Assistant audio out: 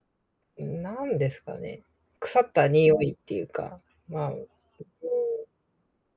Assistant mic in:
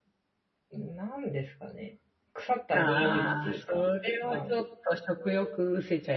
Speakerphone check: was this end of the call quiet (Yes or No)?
No